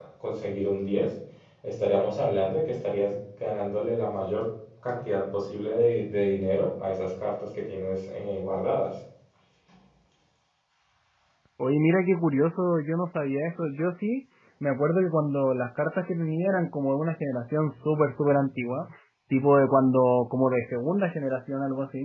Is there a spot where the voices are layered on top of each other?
No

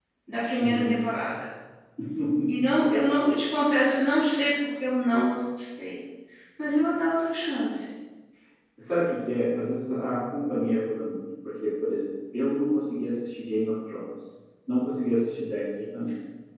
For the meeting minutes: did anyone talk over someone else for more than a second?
No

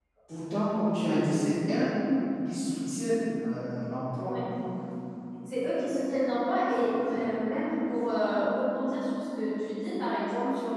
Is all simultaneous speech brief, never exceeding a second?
Yes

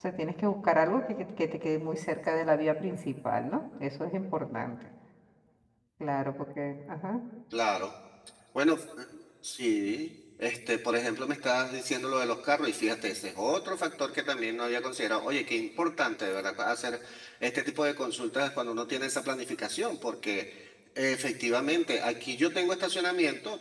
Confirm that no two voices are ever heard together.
Yes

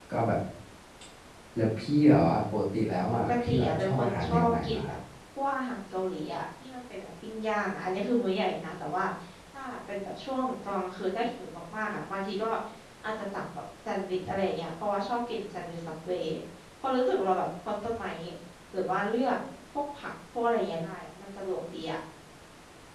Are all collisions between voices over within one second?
No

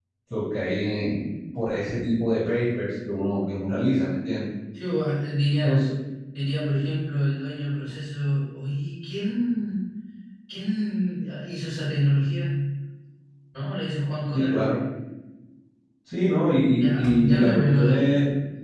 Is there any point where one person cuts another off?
Yes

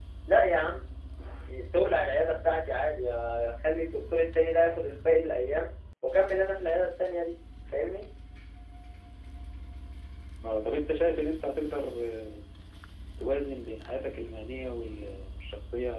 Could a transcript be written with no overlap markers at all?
Yes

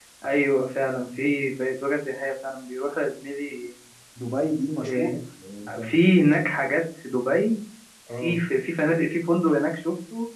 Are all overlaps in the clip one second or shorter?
Yes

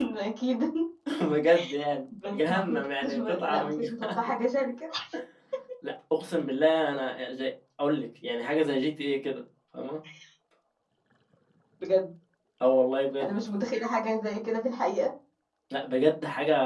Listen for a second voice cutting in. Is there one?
Yes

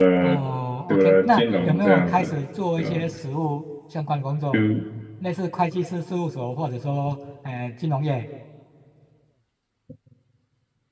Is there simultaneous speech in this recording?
Yes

